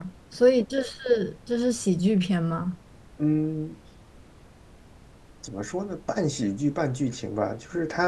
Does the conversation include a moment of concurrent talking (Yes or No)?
No